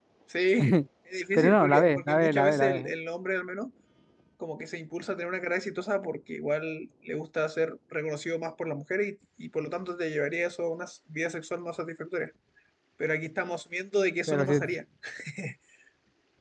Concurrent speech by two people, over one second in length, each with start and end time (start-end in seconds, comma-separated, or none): 1.3-2.9